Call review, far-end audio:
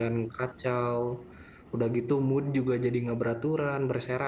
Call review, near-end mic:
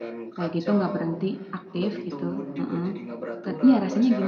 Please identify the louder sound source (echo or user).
user